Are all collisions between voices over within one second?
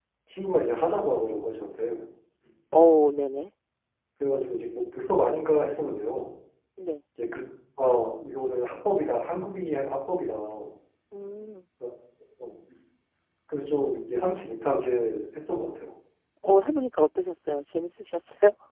Yes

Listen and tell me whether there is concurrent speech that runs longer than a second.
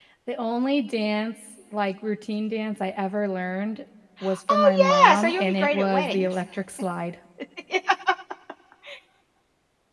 Yes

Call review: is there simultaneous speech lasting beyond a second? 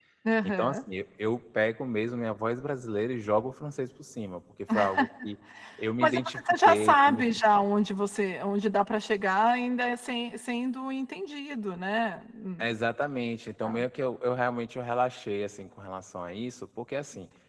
Yes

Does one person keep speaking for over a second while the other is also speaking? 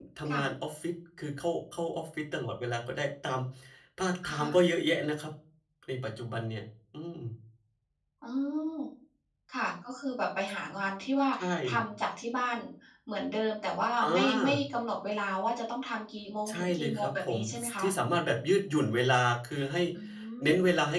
Yes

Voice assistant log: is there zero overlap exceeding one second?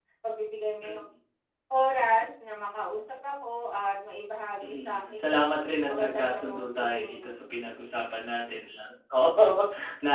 No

